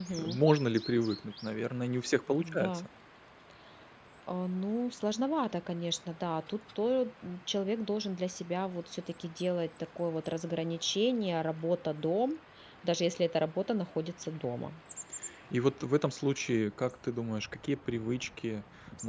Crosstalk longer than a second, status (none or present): none